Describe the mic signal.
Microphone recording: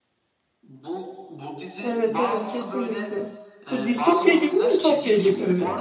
both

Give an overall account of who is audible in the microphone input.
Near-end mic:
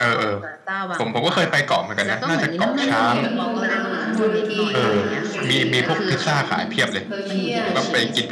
both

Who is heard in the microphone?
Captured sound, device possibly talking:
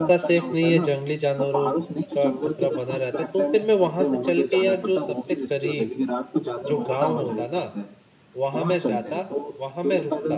both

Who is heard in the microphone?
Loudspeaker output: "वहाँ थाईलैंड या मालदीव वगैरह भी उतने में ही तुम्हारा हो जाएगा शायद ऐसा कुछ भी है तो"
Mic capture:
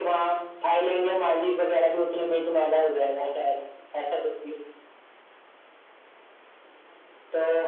echo only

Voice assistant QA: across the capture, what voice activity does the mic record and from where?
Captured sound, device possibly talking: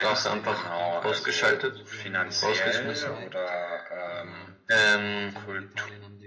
both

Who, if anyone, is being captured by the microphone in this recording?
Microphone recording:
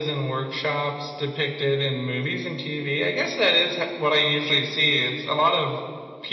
echo only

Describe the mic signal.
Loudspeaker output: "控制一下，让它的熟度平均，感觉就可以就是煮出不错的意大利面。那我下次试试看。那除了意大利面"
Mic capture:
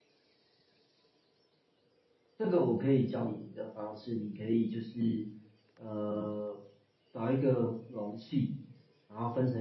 user only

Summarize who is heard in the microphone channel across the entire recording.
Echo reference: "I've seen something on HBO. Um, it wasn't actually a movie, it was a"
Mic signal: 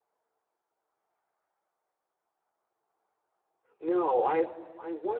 user only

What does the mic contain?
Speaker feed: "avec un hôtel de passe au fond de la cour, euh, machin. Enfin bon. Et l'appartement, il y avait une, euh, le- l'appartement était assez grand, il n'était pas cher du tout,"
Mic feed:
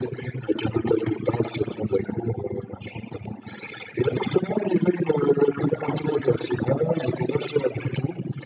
echo only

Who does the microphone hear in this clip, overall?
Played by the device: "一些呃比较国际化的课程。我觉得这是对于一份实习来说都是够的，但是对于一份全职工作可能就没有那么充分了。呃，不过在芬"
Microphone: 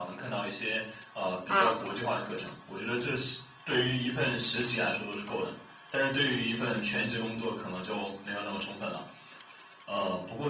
both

